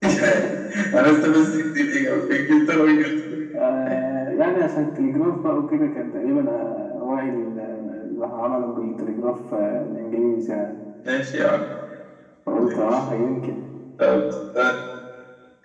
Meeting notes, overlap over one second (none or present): none